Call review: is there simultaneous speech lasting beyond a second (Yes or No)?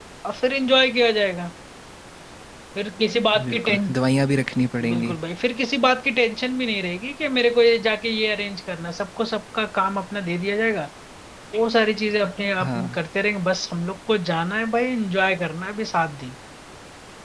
No